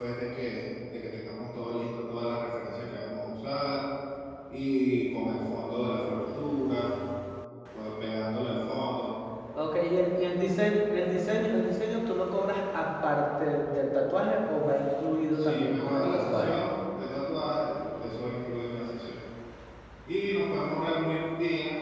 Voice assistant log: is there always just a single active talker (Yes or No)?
No